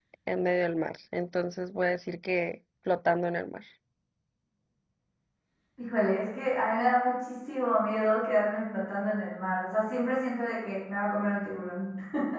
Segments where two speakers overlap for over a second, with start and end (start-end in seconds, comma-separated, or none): none